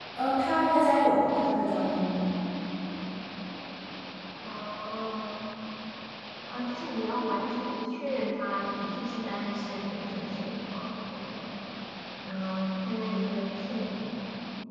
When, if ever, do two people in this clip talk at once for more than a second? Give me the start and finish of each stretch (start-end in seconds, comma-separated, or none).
none